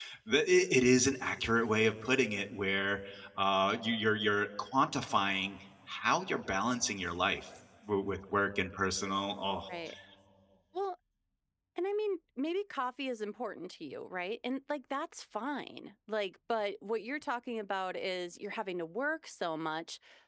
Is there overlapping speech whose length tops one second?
No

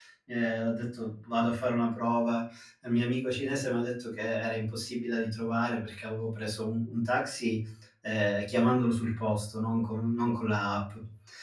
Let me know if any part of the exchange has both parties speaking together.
No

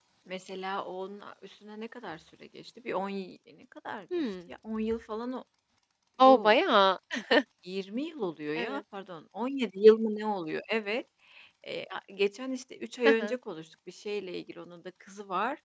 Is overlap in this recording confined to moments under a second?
Yes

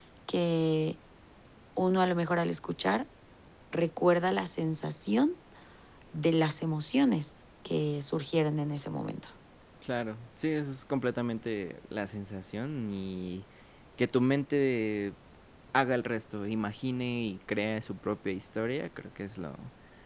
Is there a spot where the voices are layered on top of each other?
No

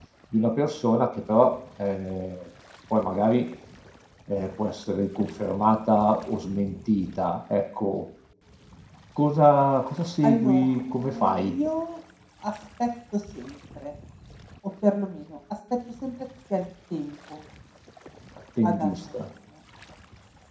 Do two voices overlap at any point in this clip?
Yes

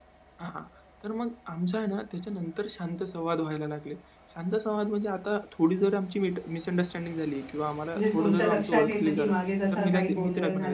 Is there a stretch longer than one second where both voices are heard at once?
Yes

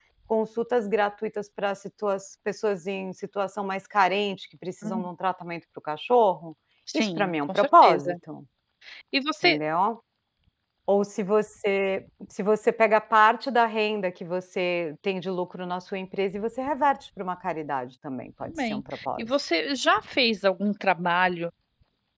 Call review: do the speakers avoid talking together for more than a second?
No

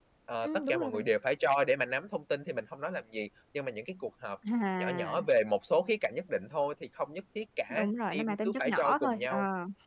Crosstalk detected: Yes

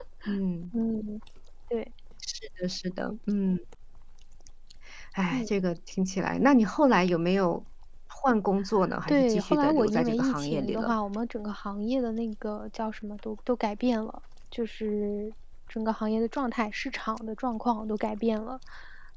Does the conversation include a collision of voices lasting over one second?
Yes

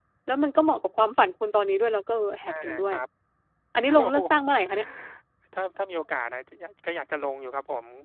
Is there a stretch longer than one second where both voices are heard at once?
No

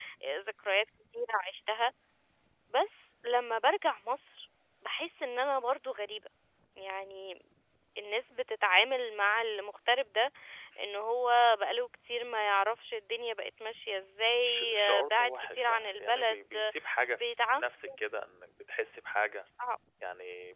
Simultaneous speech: Yes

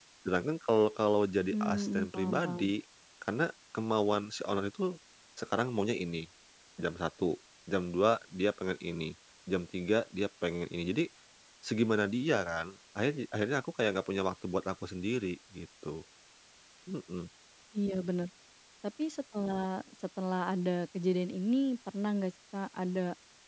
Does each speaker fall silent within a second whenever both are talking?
No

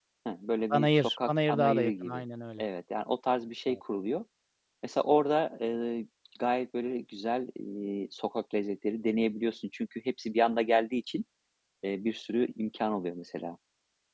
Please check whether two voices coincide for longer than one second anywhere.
Yes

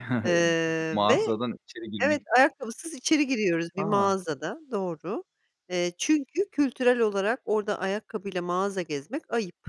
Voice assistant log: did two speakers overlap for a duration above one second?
No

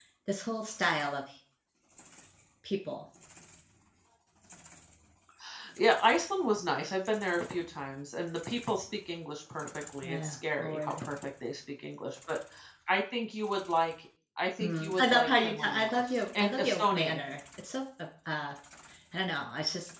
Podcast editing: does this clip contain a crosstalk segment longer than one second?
Yes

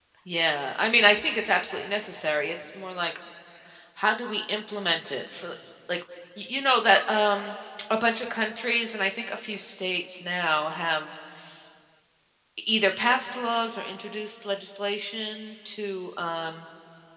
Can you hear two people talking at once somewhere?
No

